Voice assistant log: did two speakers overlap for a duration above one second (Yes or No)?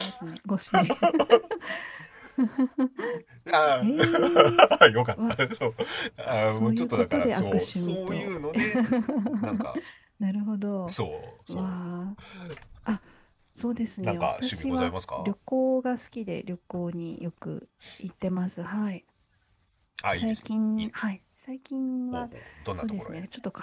Yes